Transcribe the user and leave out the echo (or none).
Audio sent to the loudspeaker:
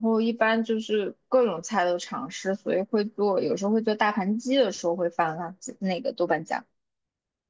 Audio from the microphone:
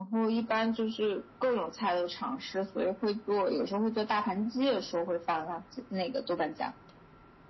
none